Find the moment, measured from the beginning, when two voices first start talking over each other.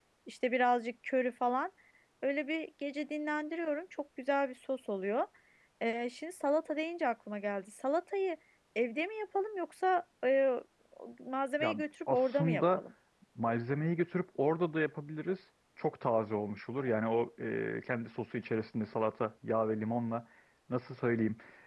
11.6 s

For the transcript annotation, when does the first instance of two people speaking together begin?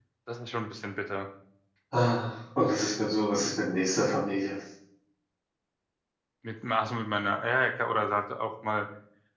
none

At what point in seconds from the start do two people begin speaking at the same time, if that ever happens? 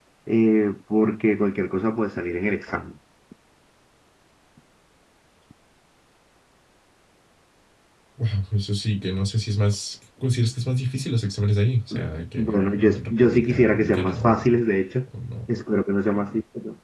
12.4 s

